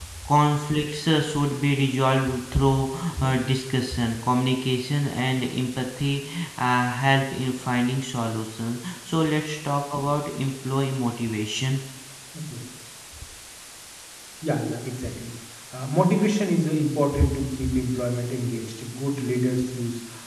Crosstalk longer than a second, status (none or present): none